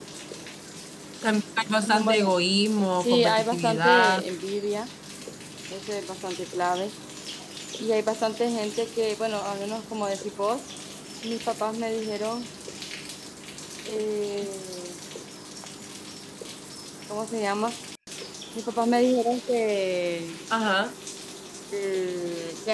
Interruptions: present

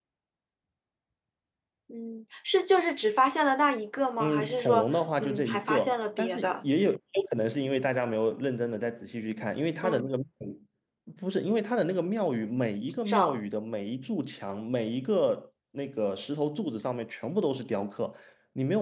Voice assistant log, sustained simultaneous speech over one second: present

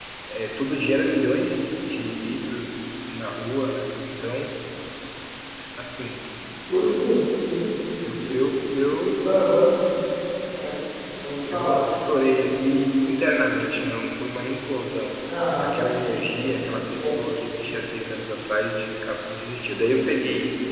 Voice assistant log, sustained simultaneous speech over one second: none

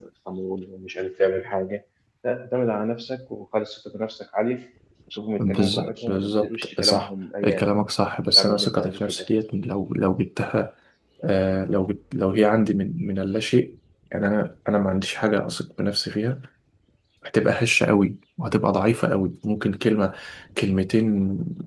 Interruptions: present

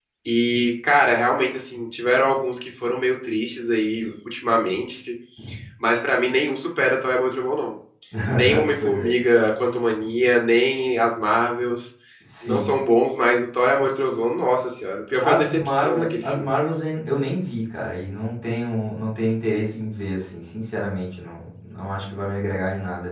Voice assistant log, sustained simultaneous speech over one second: present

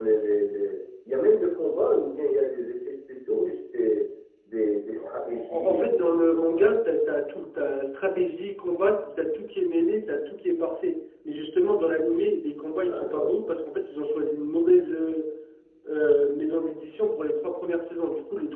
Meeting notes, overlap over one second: present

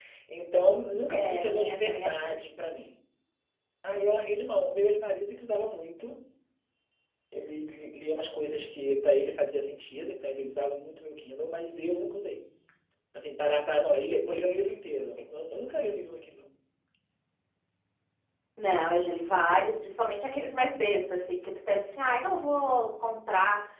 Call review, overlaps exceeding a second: present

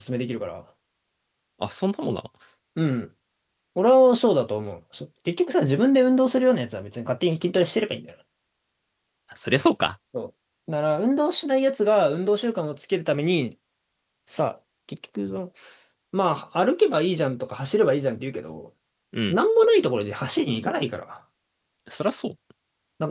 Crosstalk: none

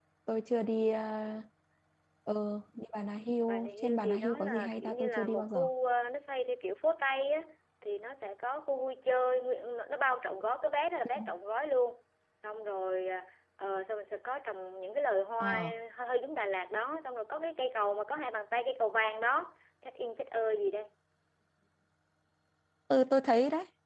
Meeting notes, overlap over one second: present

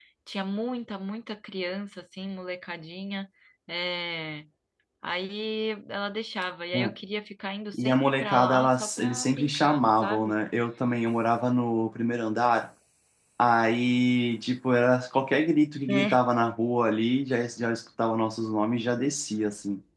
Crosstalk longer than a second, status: present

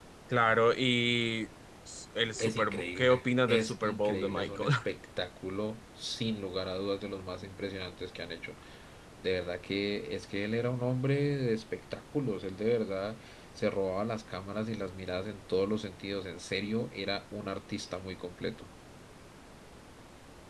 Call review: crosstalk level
present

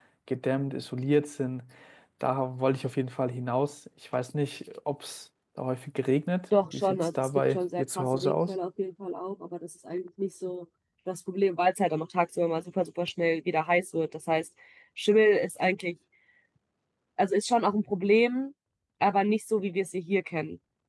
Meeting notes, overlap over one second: present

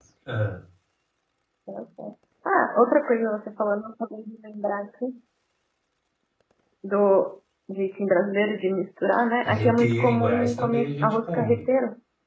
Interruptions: present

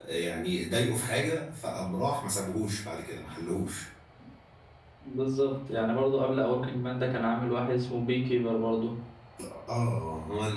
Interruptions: none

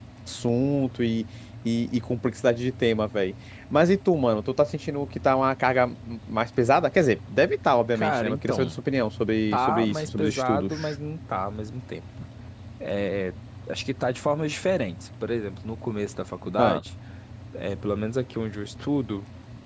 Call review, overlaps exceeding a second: present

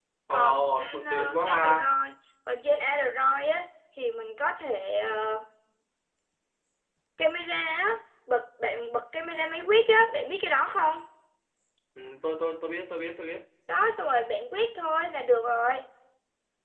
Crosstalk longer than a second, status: present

